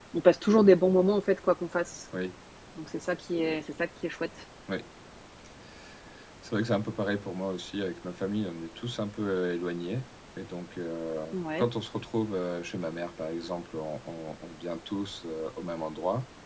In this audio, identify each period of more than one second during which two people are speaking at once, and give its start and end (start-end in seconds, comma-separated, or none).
none